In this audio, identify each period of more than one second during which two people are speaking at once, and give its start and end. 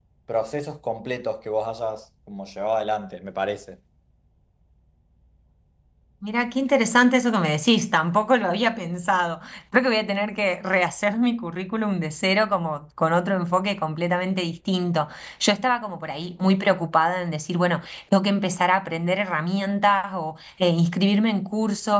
none

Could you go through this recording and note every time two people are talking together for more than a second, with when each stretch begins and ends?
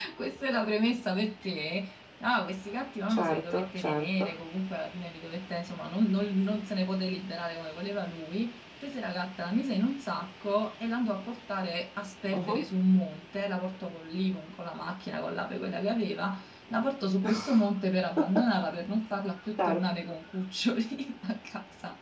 3.1-4.4

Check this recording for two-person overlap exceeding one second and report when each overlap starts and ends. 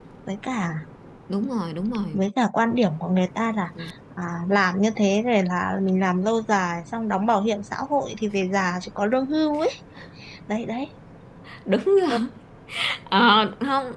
none

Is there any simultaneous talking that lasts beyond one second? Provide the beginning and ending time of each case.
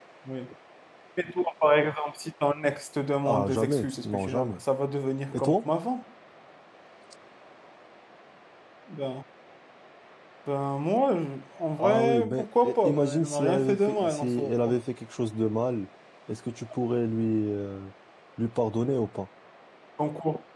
3.2-4.6, 11.8-14.5

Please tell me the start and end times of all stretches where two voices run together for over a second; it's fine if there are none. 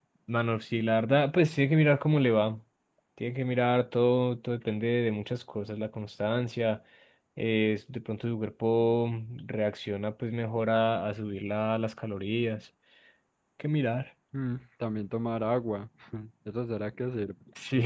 none

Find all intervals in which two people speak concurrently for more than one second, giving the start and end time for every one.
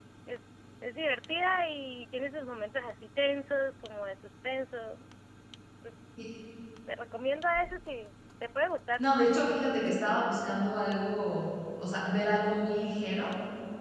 none

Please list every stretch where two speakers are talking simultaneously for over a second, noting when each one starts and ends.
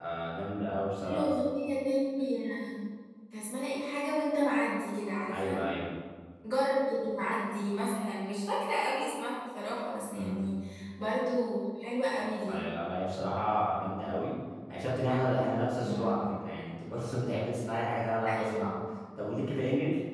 none

